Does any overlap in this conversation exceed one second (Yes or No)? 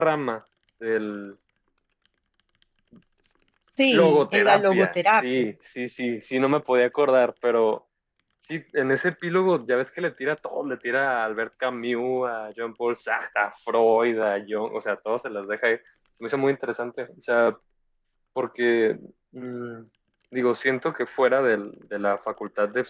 Yes